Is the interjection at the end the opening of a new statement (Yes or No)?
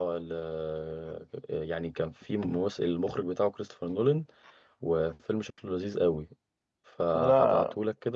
No